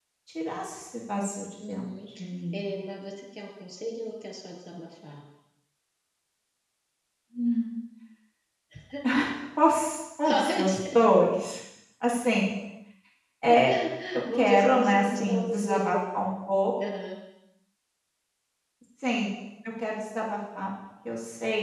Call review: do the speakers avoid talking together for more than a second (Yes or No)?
No